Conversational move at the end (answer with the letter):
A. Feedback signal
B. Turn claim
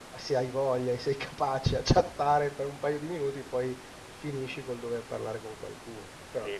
B